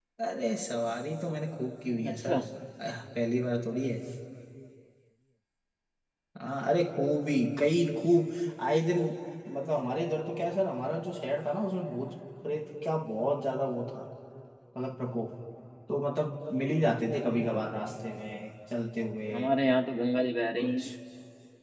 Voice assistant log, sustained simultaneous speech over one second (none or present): none